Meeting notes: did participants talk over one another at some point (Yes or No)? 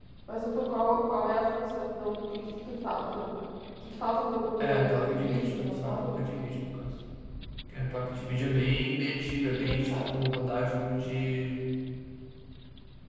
Yes